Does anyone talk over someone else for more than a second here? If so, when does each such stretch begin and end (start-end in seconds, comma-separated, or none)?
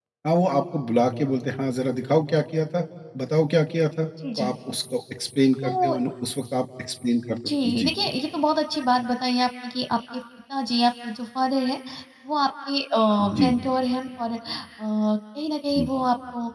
none